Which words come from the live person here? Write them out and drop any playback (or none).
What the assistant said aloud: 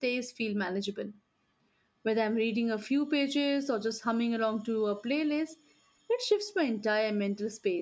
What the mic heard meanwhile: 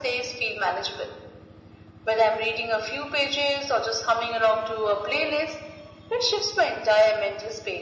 none